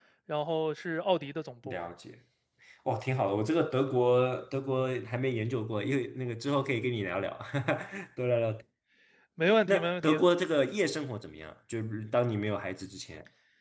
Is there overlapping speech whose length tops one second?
No

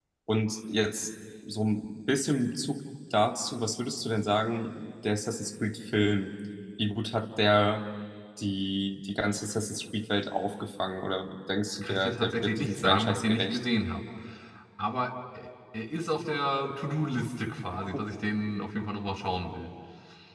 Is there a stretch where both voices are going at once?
Yes, from 11.8 s

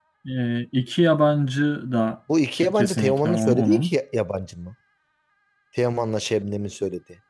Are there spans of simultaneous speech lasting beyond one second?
Yes, from 2.6 s

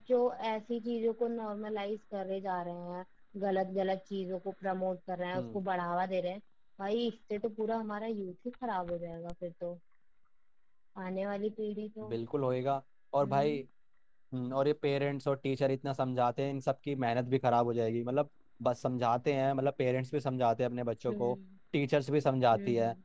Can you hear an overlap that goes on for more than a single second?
No

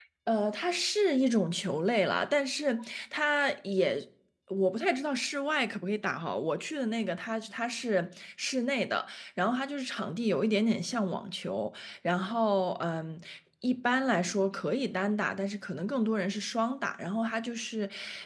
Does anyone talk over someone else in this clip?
No

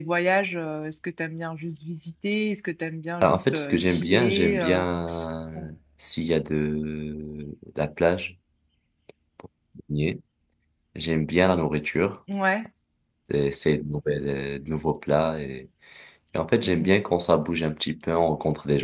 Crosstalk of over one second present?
Yes, from 3.2 s

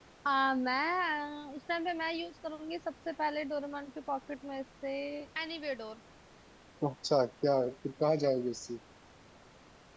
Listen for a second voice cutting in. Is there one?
No

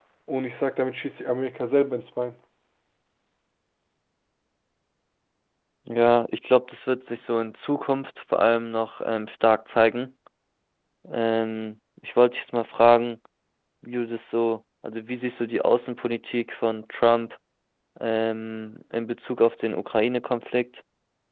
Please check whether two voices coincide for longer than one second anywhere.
No

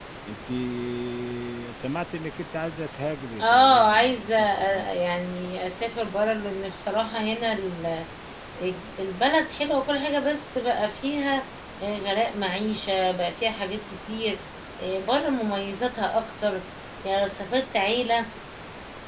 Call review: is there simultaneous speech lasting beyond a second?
Yes, from 3.4 s

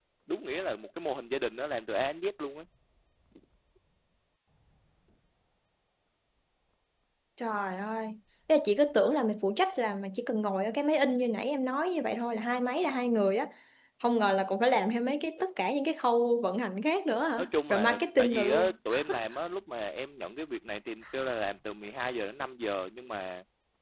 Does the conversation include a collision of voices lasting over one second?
Yes, from 17.4 s

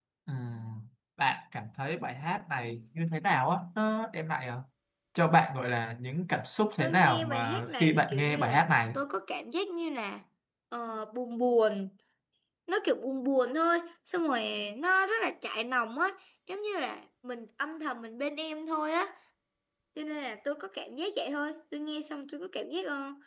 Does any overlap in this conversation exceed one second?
Yes, from 6.8 s

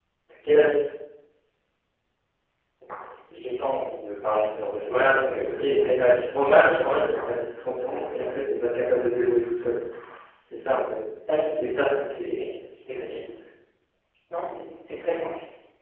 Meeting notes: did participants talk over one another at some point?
Yes, from 4.9 s

